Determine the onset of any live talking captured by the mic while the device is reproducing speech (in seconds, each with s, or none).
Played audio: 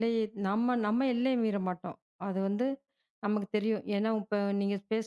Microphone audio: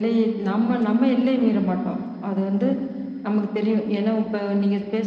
none